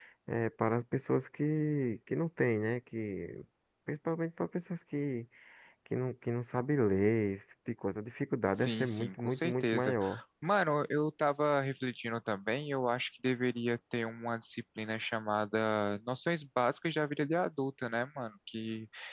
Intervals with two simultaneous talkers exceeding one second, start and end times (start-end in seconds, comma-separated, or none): 8.6-10.0